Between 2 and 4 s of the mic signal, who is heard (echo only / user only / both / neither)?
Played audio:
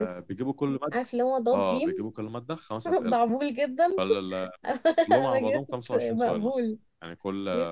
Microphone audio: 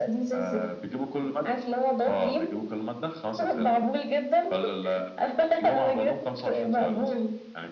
echo only